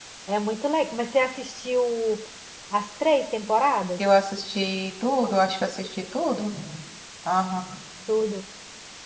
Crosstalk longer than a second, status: none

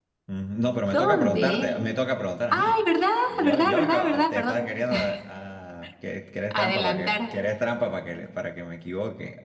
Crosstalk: present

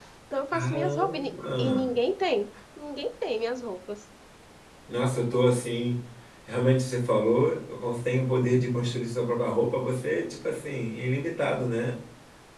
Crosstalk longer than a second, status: present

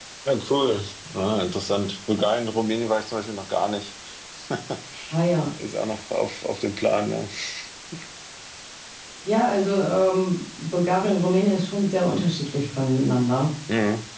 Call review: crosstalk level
none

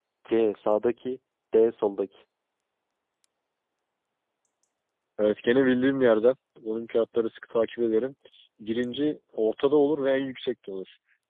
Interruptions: none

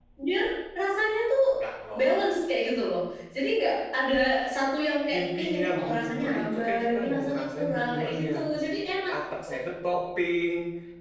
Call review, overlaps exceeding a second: present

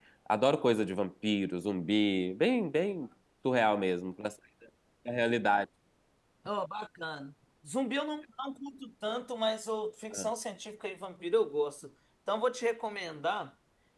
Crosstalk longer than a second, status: none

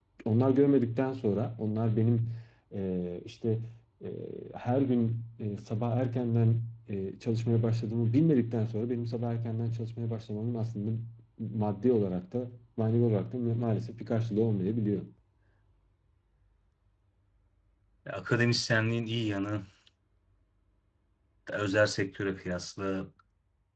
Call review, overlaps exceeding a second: none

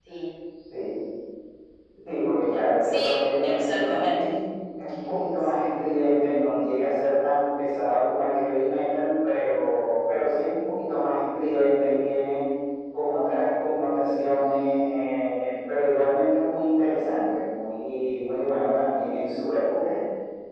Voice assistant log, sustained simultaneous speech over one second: present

